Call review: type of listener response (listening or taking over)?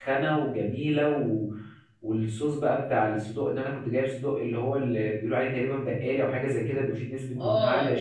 taking over